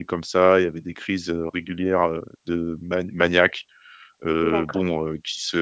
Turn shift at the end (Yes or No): No